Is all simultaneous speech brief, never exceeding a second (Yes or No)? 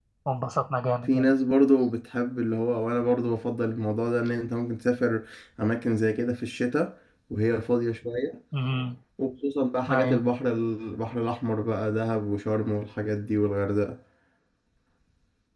Yes